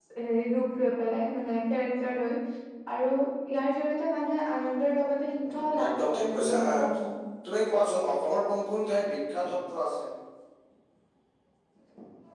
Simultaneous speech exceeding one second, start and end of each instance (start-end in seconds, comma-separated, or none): 5.5-6.8